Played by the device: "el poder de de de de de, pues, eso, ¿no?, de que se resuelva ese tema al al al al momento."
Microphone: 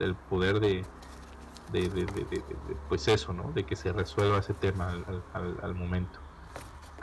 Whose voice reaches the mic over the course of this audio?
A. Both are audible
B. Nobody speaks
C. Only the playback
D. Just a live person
C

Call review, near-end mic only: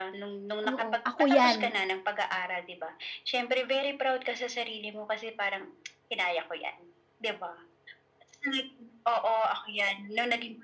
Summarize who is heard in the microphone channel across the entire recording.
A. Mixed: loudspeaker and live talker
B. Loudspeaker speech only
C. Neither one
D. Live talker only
A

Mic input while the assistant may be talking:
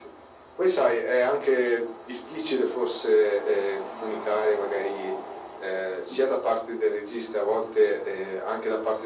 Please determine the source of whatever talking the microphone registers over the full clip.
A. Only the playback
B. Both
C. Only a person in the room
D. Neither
A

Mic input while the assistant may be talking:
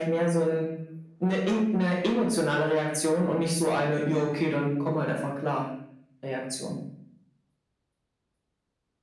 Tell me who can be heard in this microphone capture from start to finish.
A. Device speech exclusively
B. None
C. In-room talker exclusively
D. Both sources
A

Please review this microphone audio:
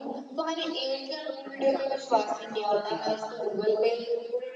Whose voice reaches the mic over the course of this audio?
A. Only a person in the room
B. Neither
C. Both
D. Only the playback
D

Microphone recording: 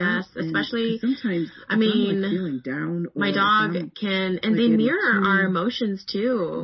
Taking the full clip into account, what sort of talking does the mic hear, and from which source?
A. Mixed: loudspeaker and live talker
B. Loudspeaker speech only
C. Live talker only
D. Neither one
B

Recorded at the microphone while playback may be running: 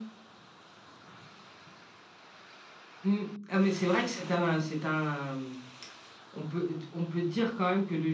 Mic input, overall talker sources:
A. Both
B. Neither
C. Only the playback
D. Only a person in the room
C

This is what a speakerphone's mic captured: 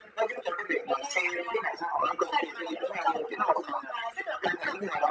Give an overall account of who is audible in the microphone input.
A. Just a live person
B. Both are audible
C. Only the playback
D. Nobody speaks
C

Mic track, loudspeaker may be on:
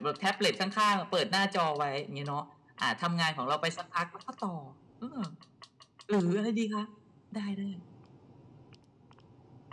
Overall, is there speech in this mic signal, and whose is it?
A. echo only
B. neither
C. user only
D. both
A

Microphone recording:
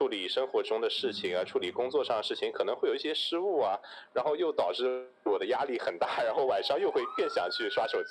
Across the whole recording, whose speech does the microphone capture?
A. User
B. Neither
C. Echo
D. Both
D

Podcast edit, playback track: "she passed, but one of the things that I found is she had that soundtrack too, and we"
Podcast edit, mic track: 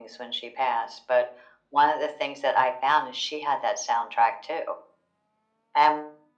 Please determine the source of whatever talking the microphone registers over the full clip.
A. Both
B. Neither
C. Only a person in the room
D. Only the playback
D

